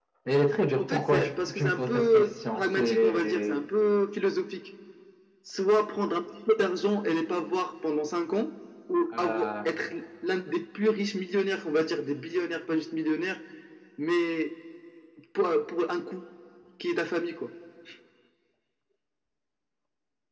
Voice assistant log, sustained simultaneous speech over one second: present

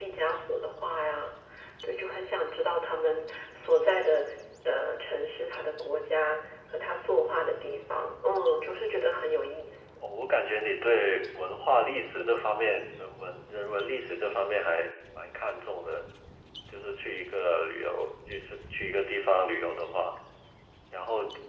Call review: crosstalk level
none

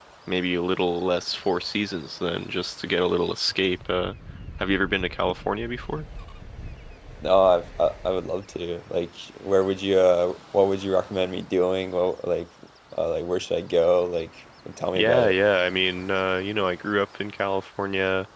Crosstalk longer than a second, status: none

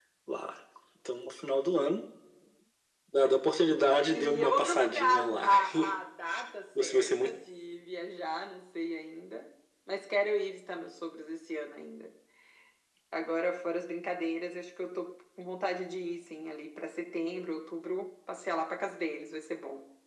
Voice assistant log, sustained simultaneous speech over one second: present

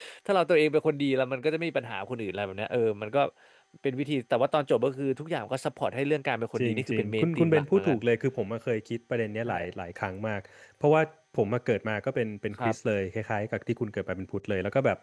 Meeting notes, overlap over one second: present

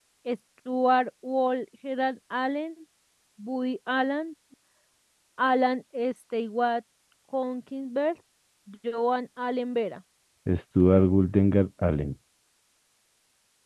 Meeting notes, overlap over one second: none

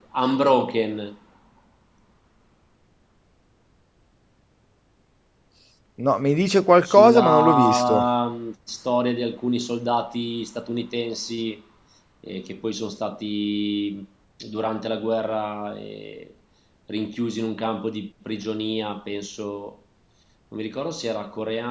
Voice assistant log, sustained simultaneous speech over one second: present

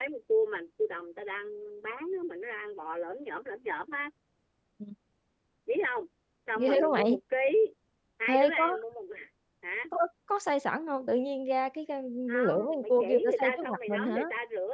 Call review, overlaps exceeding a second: present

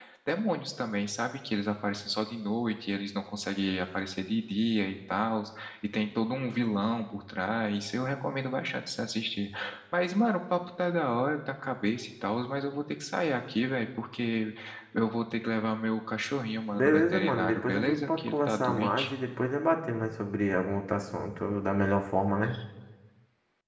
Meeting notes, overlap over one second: present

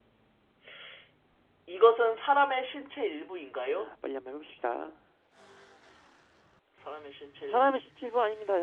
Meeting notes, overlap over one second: none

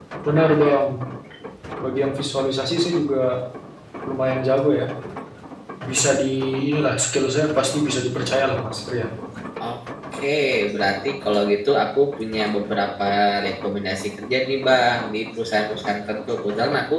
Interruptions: none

